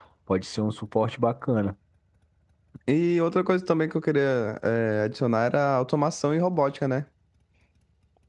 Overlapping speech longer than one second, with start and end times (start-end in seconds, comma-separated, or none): none